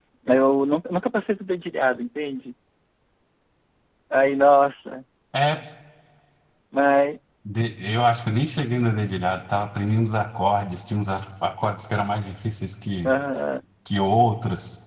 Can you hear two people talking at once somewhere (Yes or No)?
No